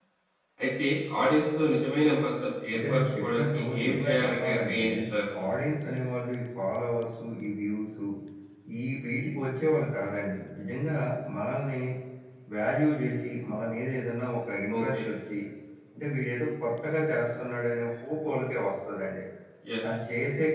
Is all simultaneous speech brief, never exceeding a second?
No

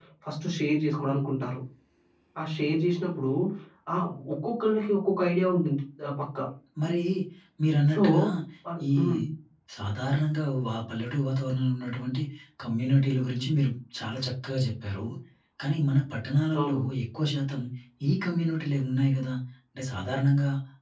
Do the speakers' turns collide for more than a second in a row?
No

